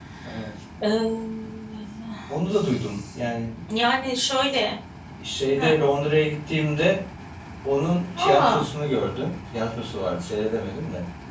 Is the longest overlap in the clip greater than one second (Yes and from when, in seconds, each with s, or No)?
No